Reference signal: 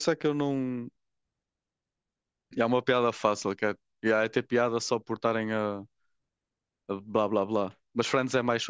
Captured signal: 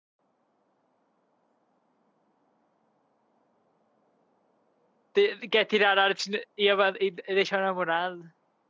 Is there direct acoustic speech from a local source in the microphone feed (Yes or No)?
Yes